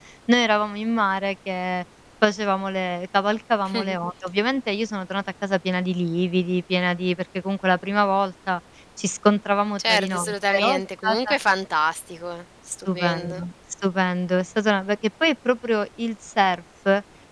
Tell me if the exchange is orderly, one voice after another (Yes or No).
No